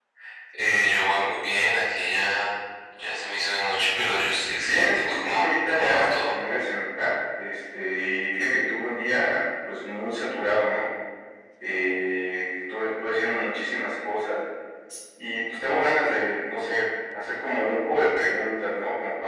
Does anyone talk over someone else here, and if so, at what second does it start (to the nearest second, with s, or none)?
5 s